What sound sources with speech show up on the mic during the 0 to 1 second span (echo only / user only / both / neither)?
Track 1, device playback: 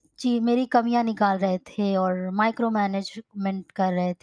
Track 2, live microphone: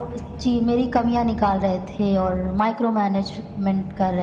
echo only